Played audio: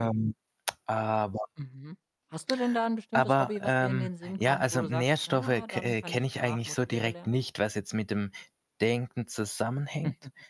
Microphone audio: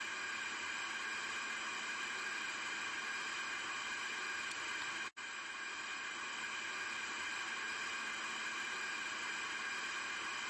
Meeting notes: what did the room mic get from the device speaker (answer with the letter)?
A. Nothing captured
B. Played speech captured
A